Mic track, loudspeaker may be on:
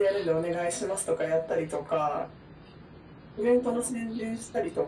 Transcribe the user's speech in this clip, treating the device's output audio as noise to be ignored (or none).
none